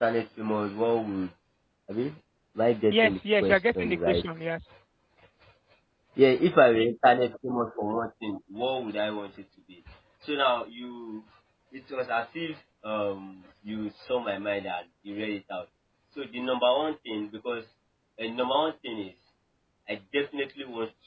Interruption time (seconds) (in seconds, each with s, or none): 2.9 s